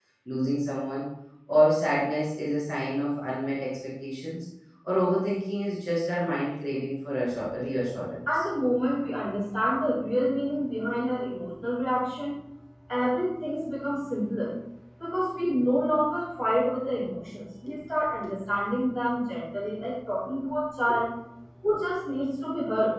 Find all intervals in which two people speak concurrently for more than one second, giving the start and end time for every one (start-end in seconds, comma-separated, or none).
none